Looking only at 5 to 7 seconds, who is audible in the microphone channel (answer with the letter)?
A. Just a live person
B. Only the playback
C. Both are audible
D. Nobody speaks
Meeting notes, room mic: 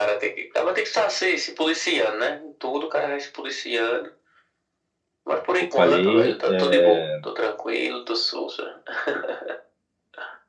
C